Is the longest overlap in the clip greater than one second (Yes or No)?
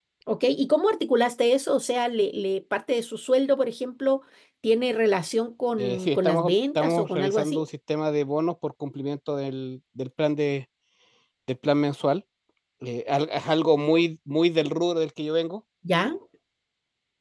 Yes